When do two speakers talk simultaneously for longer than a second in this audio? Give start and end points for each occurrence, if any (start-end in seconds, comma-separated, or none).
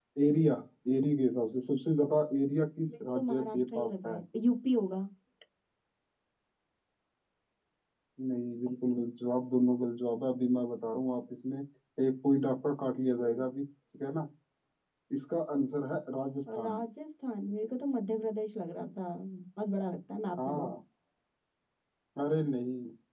2.9-4.2